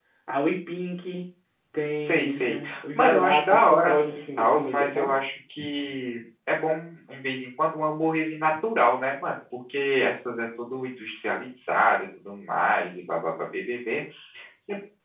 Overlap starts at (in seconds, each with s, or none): 2.0 s